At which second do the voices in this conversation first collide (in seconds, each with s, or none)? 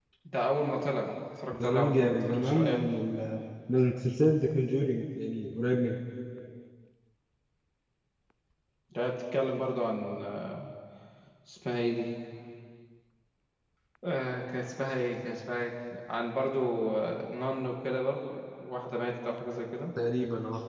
1.5 s